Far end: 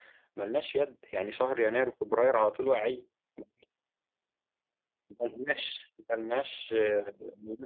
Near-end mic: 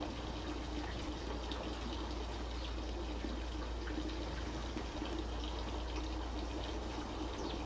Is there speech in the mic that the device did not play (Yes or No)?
No